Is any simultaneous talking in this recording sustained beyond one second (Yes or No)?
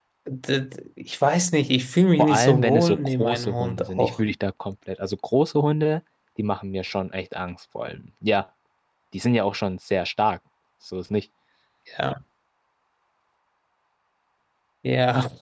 Yes